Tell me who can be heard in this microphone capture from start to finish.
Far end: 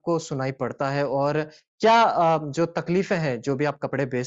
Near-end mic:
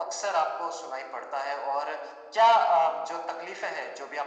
echo only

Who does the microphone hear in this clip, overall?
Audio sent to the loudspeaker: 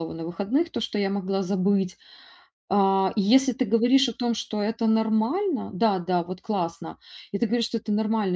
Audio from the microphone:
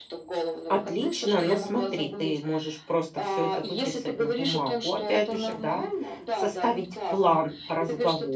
both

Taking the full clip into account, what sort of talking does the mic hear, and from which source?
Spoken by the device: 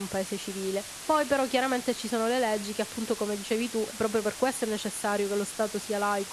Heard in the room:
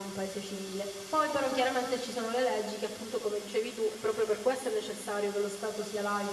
echo only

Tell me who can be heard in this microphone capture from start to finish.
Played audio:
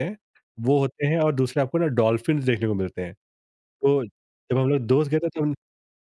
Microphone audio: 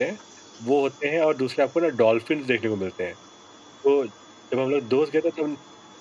echo only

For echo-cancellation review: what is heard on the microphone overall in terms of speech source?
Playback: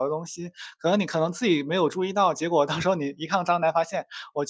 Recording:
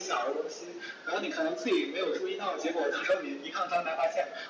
echo only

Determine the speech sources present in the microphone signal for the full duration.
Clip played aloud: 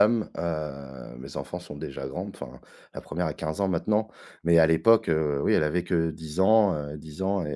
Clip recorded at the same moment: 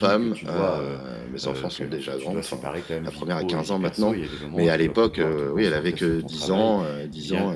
both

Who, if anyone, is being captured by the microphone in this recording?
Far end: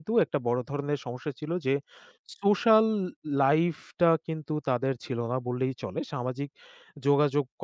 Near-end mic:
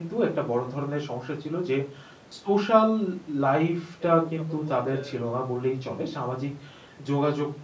both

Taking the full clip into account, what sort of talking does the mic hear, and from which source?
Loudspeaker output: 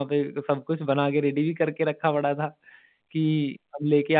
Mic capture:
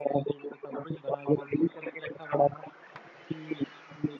echo only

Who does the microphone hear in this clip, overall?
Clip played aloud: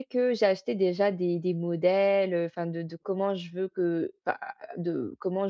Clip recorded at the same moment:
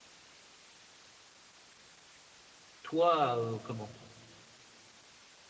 user only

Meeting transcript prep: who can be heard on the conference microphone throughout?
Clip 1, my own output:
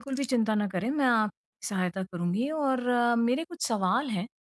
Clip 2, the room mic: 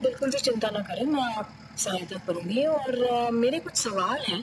echo only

